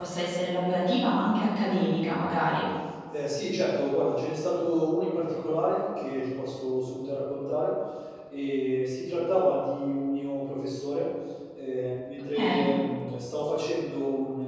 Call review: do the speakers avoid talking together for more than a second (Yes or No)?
Yes